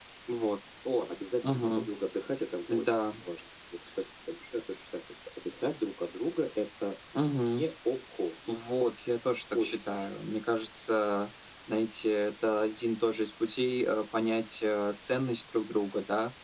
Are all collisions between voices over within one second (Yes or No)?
Yes